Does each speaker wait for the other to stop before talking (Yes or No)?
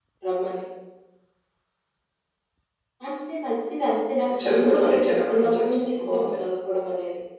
No